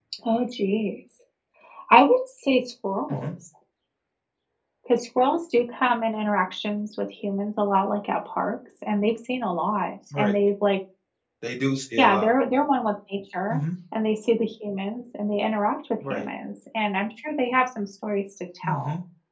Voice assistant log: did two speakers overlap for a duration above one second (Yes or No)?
No